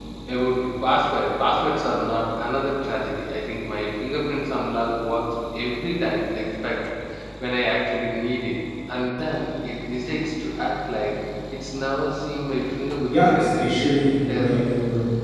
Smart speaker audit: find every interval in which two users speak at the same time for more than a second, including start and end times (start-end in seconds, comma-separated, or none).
13.1-14.7